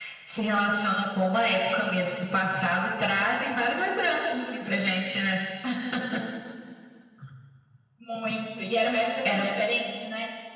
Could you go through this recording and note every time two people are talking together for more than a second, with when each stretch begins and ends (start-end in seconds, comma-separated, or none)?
none